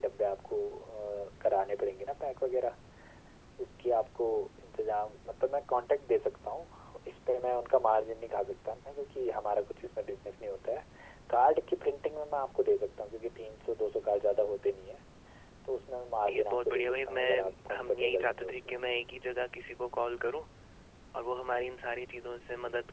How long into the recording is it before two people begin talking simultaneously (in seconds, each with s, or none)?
16.3 s